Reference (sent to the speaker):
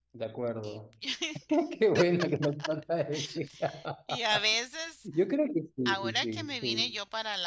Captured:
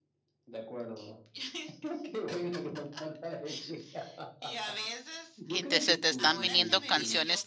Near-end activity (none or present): present